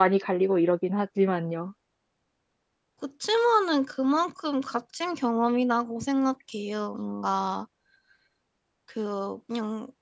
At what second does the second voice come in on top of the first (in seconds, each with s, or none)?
none